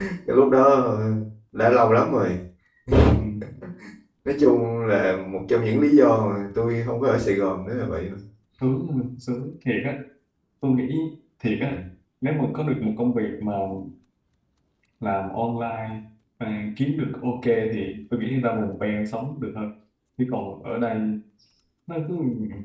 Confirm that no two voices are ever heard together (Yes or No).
Yes